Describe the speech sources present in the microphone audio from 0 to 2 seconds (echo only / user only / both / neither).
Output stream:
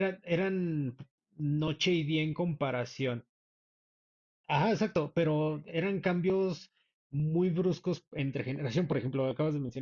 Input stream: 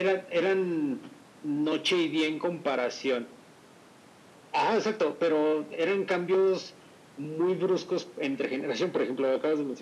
echo only